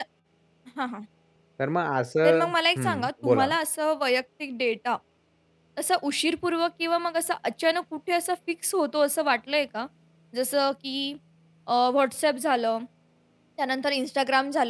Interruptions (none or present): present